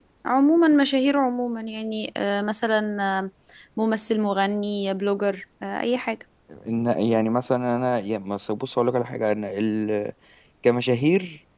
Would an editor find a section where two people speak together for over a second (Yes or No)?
No